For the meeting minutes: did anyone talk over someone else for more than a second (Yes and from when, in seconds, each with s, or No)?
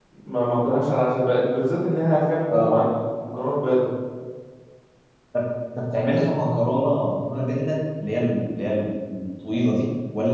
No